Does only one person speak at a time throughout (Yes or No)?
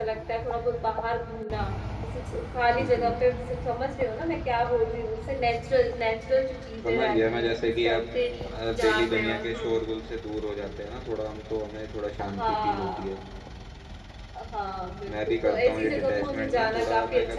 No